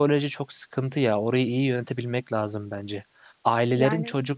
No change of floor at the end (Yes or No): Yes